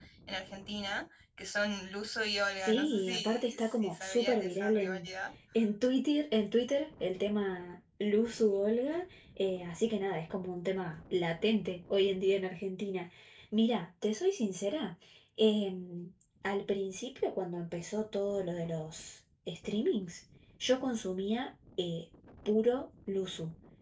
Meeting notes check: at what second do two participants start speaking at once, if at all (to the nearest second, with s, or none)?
3 s